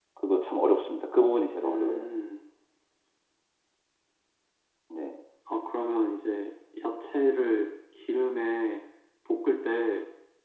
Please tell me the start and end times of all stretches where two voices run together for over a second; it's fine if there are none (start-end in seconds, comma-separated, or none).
none